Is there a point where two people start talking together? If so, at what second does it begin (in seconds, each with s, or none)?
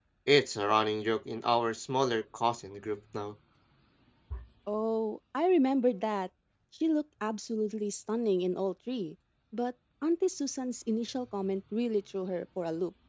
none